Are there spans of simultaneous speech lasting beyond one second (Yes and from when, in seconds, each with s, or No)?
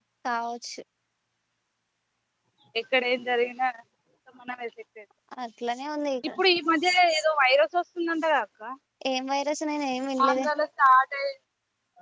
No